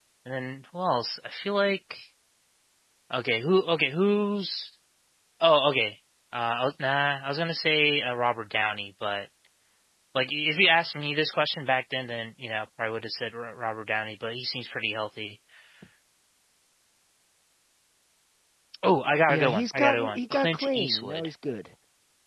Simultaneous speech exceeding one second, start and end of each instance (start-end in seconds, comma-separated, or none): 19.3-21.3